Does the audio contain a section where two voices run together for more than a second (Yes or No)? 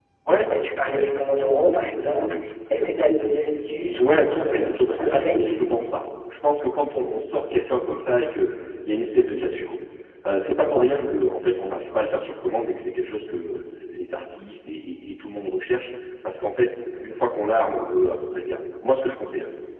Yes